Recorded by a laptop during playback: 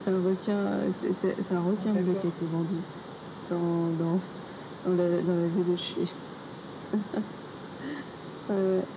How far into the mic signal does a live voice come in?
1.8 s

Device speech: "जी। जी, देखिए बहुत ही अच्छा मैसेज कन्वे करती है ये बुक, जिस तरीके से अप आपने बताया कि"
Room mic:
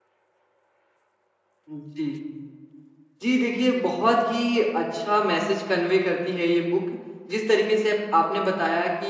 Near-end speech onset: none

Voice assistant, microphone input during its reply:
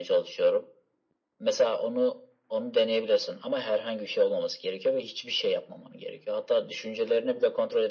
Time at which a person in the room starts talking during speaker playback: none

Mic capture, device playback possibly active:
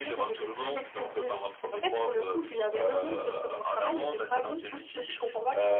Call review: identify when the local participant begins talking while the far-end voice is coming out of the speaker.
none

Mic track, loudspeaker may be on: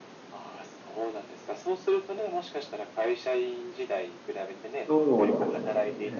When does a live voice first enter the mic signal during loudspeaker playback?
4.8 s

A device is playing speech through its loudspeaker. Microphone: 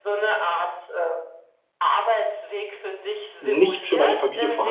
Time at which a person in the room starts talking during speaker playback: 3.4 s

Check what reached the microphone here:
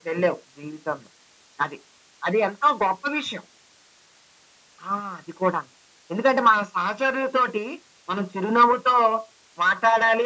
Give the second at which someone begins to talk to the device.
none

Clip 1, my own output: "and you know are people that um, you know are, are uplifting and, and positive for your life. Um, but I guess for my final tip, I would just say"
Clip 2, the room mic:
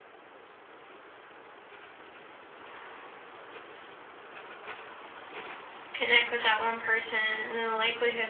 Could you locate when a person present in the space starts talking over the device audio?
5.9 s

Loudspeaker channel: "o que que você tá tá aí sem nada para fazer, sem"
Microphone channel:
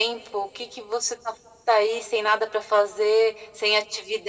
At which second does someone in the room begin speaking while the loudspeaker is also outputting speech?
none

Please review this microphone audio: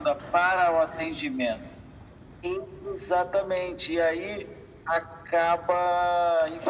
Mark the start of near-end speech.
none

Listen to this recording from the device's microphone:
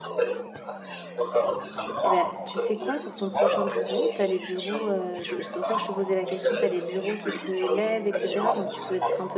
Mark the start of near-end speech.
2.0 s

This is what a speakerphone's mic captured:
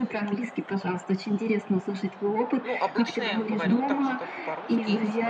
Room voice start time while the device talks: 2.6 s

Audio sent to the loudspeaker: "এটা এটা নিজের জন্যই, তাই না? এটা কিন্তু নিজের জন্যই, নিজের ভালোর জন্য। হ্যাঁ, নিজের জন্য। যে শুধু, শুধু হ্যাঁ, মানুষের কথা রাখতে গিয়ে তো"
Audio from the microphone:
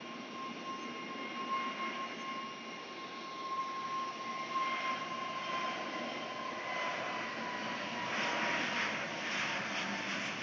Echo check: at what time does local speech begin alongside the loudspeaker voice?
none

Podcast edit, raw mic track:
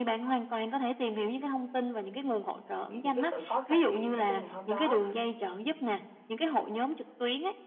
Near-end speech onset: 2.9 s

